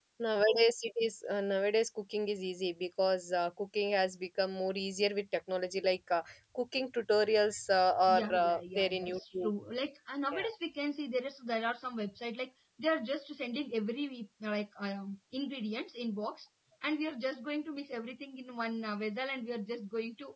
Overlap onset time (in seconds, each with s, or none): 8.1 s